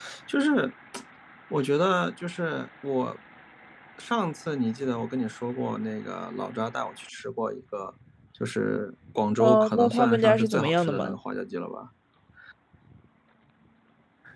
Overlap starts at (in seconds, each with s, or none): 9.4 s